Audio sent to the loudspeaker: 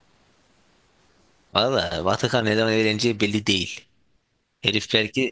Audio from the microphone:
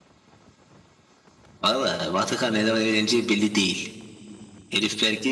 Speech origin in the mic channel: echo only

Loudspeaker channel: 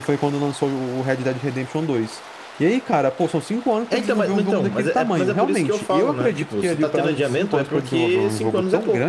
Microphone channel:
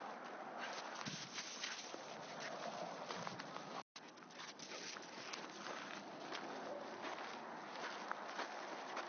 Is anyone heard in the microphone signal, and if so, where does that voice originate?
neither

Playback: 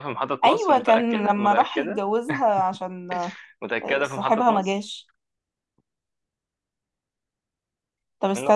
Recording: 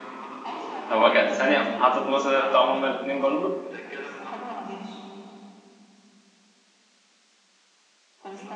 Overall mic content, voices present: both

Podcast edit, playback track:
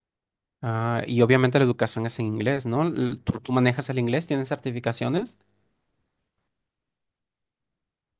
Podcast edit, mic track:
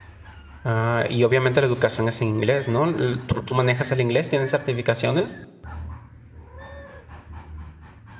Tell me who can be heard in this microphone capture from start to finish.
echo only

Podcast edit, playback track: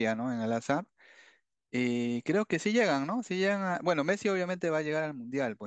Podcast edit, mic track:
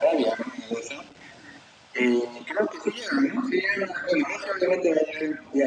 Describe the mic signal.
echo only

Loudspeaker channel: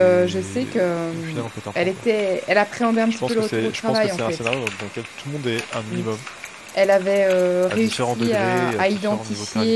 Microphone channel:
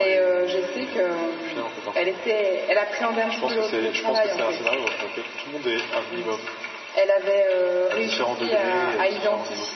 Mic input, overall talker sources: echo only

